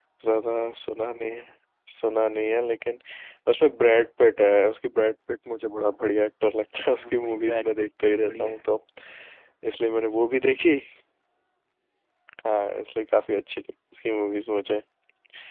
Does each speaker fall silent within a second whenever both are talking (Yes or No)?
No